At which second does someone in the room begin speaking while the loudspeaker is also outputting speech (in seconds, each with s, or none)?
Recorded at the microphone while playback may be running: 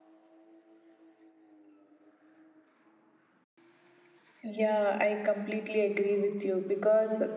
4.4 s